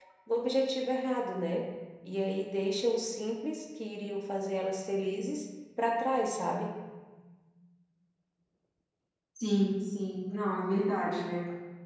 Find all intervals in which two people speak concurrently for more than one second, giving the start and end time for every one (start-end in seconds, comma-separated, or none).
none